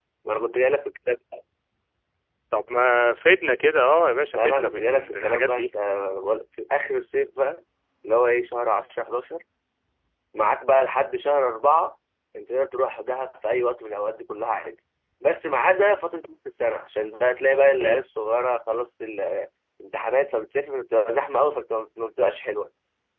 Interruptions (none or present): present